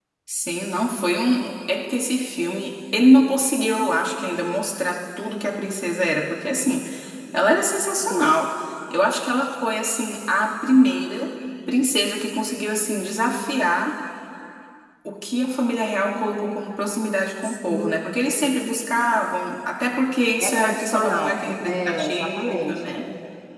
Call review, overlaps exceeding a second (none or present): present